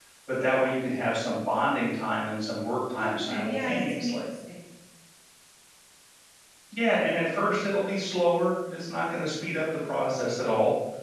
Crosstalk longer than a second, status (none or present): present